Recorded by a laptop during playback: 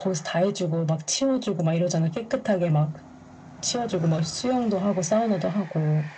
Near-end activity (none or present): none